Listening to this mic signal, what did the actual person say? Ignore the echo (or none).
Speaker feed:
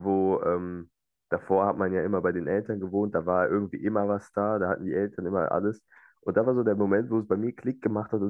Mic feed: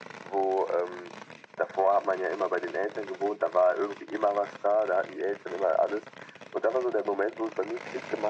none